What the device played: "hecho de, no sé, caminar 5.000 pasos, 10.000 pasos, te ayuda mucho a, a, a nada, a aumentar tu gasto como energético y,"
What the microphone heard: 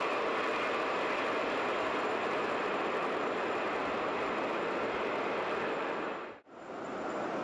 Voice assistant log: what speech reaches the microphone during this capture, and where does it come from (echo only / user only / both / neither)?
neither